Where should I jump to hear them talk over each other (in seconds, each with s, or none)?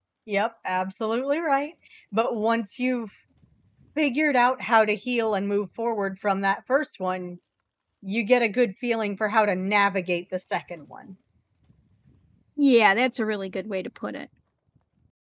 none